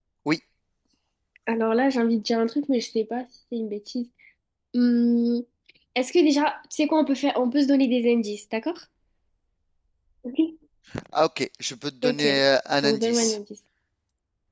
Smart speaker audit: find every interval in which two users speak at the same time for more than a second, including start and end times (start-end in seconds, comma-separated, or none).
none